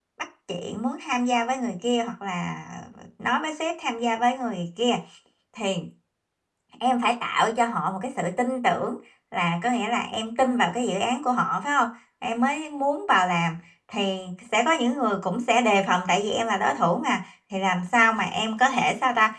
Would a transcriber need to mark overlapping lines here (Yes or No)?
No